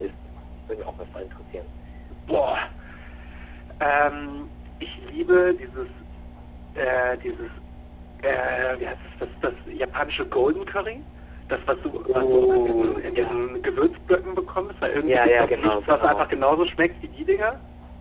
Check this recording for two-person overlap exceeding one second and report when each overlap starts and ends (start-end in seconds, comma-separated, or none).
12.1-13.4, 15.0-16.3